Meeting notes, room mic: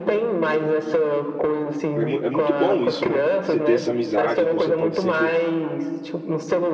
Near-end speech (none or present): present